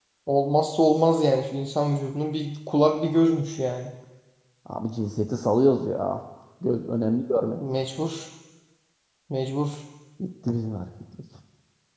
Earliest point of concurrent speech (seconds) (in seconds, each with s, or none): none